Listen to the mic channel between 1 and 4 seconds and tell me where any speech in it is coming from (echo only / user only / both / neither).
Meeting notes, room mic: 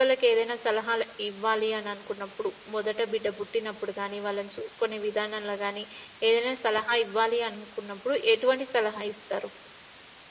user only